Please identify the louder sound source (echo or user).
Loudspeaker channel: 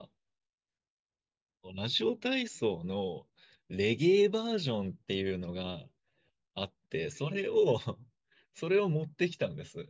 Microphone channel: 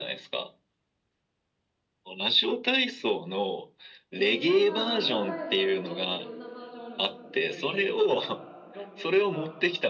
echo